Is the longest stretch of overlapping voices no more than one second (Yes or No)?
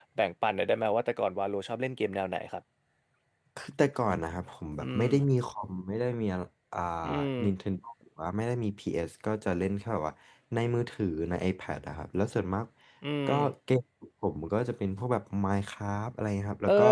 Yes